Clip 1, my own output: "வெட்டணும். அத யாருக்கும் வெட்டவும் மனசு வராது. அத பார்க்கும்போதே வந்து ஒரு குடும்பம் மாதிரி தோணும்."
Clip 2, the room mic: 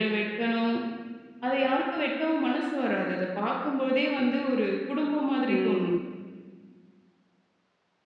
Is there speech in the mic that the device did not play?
Yes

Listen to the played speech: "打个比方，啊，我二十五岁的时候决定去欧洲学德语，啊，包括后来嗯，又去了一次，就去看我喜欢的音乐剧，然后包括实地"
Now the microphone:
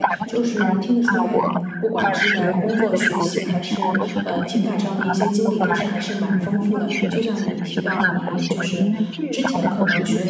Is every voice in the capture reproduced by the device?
No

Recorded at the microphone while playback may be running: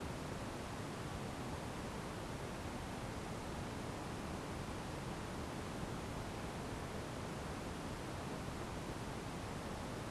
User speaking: No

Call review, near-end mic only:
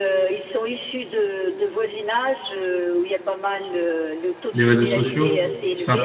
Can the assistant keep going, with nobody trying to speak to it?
No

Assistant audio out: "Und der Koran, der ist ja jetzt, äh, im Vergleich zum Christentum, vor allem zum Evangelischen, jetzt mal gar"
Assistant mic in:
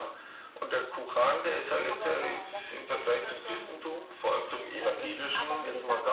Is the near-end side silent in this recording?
No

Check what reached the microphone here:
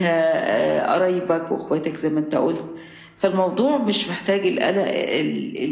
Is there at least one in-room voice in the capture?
No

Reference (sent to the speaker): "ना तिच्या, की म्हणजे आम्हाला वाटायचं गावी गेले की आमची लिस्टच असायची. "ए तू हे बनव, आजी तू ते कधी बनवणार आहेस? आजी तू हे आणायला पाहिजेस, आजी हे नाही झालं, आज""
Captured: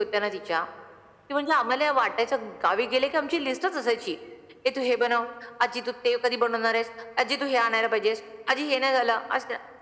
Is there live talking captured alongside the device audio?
No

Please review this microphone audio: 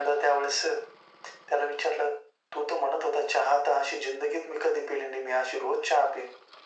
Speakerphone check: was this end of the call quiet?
Yes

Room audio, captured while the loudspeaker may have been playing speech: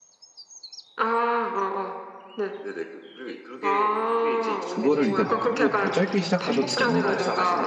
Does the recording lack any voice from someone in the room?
No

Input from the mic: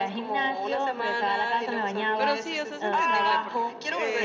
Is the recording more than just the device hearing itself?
Yes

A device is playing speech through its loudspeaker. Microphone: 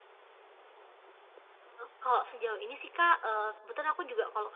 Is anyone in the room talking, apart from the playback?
Yes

